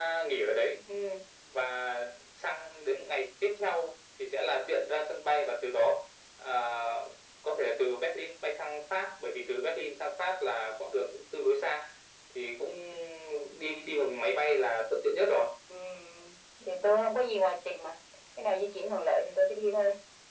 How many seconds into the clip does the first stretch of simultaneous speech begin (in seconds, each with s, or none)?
none